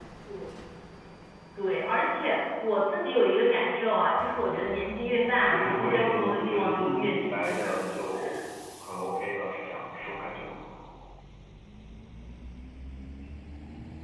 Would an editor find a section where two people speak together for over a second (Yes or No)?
Yes